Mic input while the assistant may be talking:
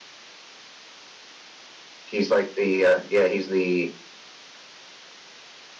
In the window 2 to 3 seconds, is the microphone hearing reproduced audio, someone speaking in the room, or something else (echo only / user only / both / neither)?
user only